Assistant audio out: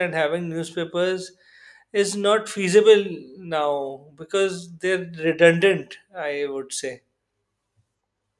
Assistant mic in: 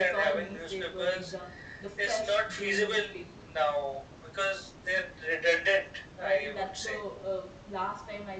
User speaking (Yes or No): Yes